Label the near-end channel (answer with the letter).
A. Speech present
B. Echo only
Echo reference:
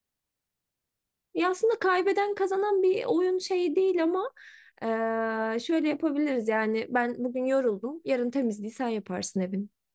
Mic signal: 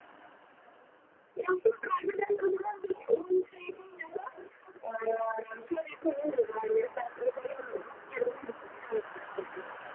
B